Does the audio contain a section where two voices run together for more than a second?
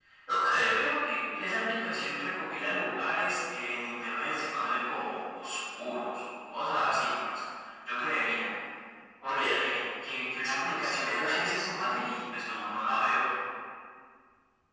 Yes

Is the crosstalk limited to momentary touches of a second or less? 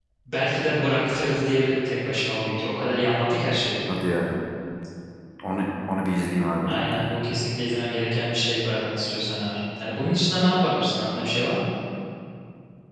Yes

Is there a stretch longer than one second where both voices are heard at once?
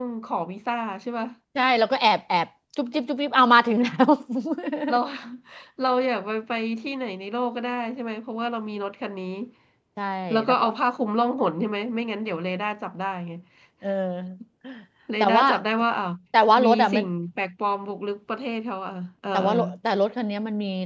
No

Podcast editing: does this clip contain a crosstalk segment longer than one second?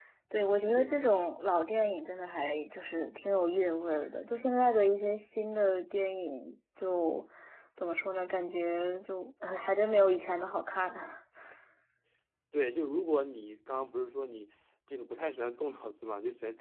No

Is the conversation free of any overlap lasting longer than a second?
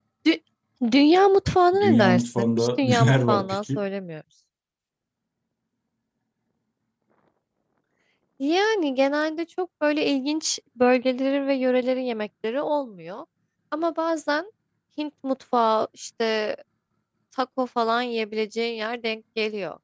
No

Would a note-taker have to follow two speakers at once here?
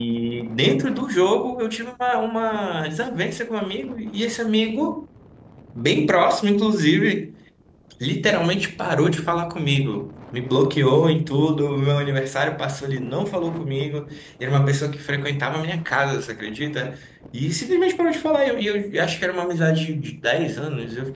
No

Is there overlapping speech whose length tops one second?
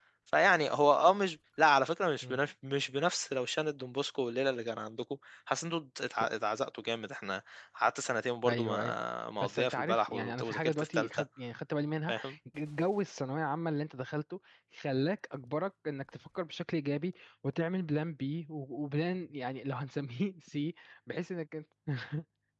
Yes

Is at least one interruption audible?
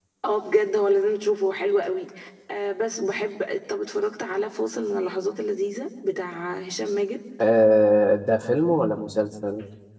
No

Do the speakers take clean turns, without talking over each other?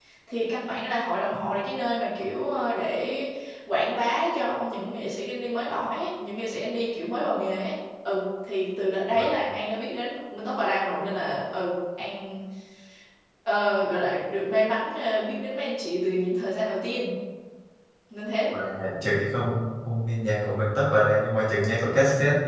Yes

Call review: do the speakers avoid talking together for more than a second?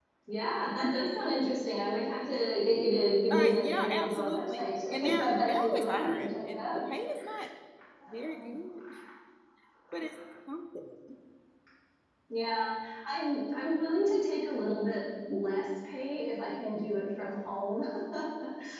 No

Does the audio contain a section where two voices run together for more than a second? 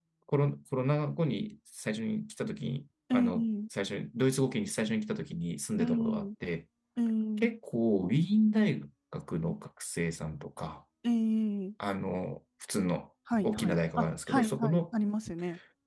Yes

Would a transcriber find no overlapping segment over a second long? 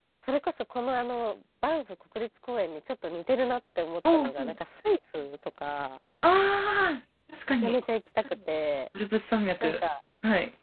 Yes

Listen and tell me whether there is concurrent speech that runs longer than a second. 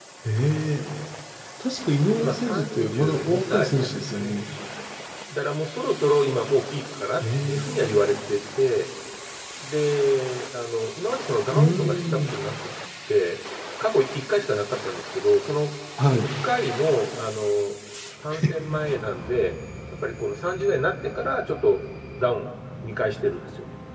Yes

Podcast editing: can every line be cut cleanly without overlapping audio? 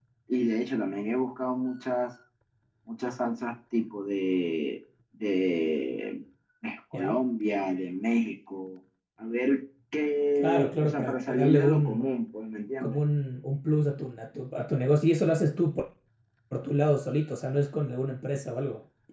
No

